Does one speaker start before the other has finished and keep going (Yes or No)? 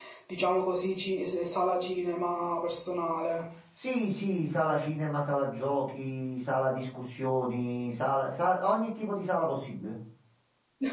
No